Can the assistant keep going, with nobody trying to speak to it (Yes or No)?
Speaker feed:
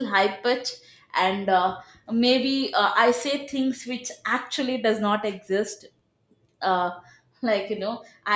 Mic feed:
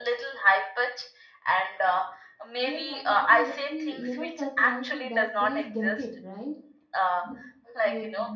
No